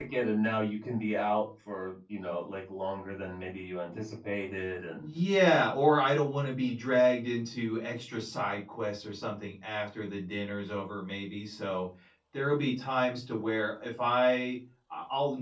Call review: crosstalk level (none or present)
none